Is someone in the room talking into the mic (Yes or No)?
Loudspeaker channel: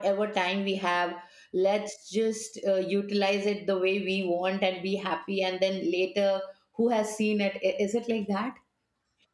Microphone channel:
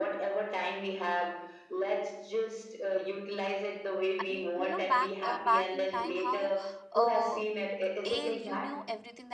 Yes